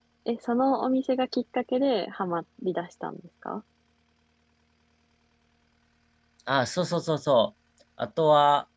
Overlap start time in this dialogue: none

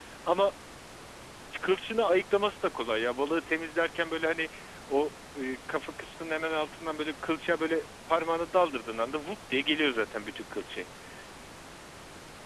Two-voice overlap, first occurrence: none

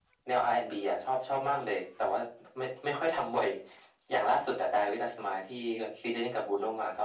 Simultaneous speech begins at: none

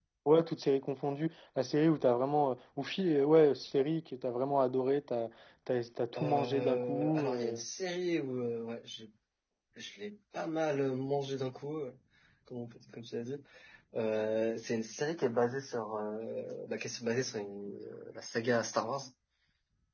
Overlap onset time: 6.2 s

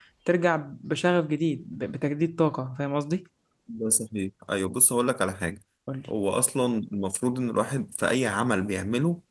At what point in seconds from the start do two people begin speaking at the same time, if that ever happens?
none

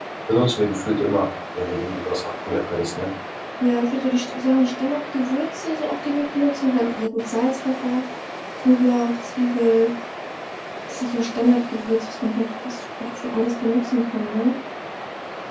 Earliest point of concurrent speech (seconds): none

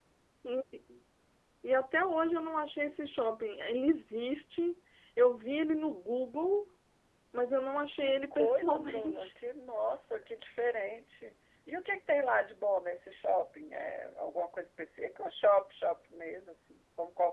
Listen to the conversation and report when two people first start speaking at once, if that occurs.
7.9 s

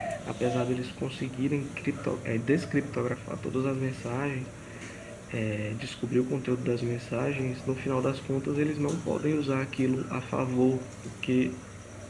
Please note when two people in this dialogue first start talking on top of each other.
none

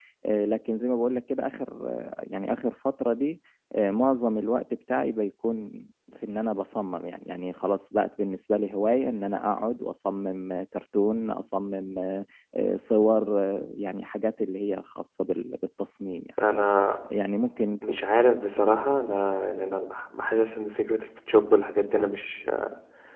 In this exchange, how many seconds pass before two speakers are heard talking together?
none

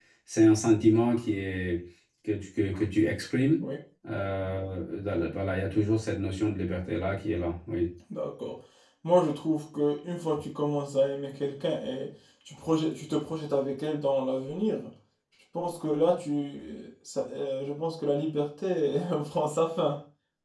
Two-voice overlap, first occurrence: none

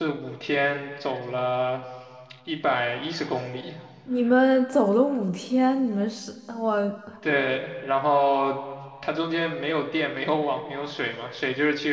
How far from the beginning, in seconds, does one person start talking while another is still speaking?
none

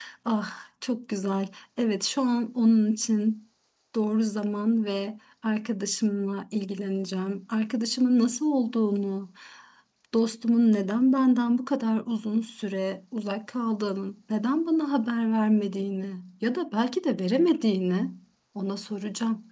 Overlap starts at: none

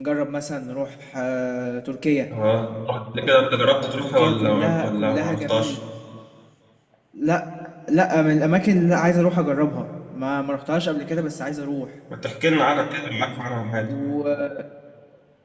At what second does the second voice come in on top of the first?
4.0 s

